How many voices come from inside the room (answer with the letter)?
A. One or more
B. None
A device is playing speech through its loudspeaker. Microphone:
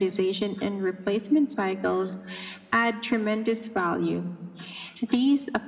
B